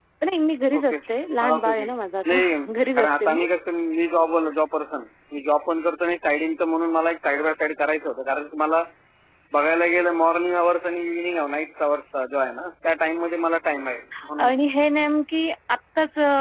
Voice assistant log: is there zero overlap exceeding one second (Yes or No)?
Yes